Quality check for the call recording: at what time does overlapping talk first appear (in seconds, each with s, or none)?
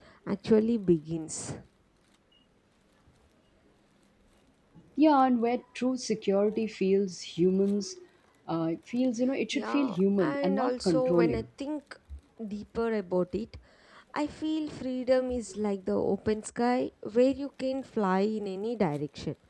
9.5 s